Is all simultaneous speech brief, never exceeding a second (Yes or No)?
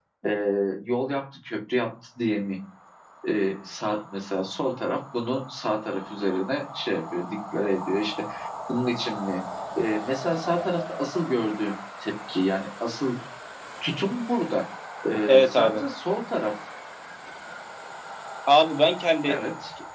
Yes